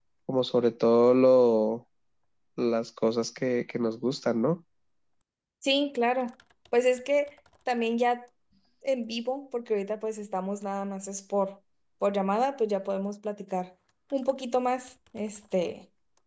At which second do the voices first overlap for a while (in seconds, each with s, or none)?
none